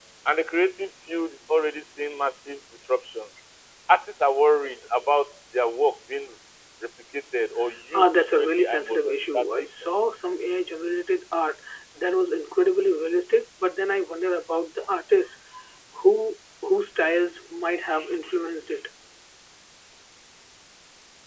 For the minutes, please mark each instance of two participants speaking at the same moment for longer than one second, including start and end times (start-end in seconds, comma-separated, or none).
7.9-9.9